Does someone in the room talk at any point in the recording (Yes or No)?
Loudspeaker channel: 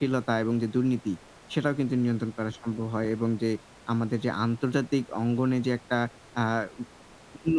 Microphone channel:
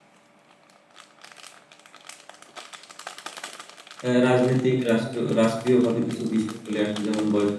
Yes